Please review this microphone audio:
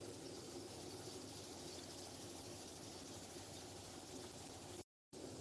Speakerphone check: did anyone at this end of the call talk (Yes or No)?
No